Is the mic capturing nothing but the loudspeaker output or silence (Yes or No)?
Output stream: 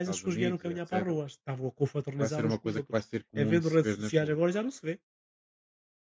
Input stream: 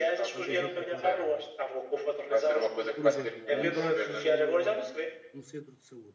No